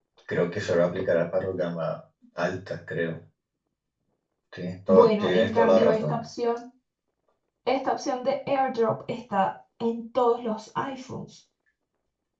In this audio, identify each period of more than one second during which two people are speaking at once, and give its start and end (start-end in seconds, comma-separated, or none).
4.9-6.2